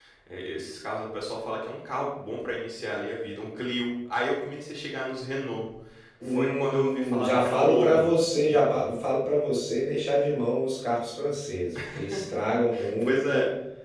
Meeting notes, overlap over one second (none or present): present